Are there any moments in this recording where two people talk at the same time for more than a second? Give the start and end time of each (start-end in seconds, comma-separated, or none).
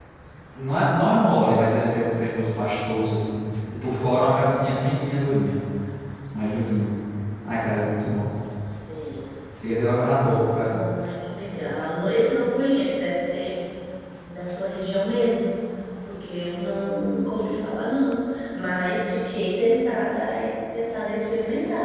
none